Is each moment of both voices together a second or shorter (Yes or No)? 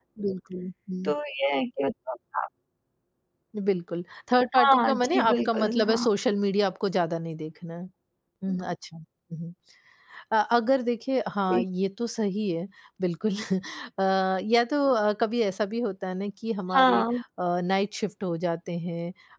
No